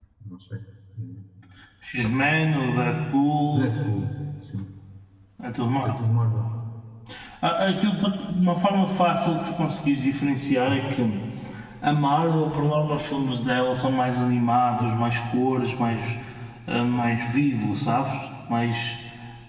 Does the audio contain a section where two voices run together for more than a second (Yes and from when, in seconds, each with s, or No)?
No